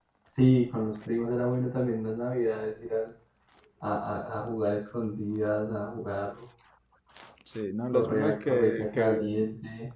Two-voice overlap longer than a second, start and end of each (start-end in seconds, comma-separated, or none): 7.9-9.3